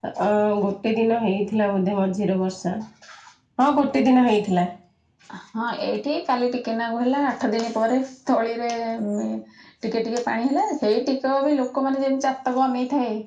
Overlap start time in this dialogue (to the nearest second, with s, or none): none